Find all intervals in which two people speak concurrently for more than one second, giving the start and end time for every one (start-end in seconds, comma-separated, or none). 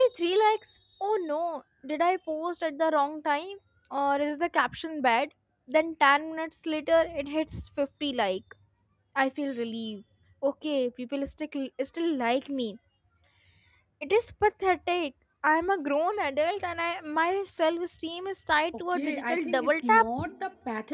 18.8-20.1